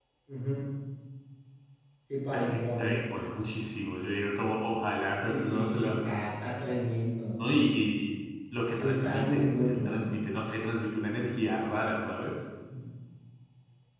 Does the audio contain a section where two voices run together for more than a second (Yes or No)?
Yes